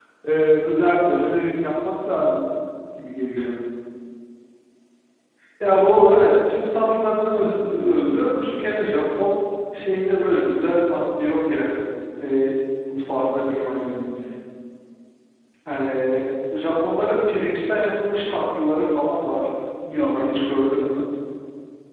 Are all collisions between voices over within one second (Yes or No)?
Yes